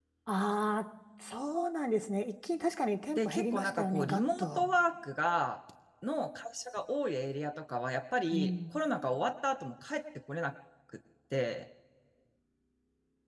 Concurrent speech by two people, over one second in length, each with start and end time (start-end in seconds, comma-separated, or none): 3.2-4.7